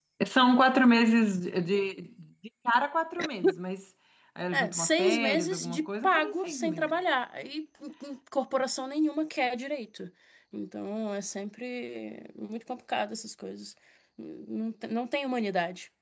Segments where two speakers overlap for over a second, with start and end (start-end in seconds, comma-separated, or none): 4.5-6.9